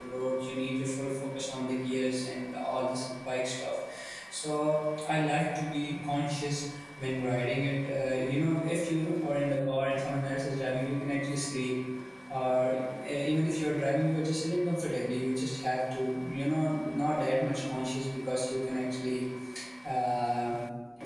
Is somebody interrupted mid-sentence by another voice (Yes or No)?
No